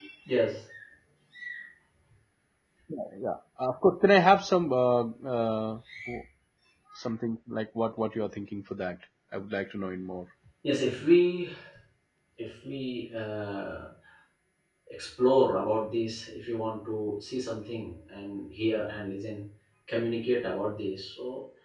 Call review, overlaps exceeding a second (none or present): none